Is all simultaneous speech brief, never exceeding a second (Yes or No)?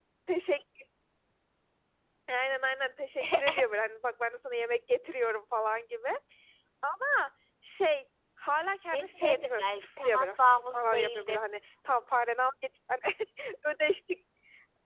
No